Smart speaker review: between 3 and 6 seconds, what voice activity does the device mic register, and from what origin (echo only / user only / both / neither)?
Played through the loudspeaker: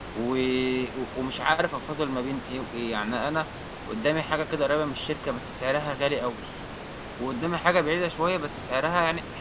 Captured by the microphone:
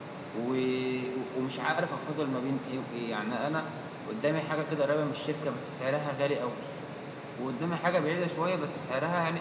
echo only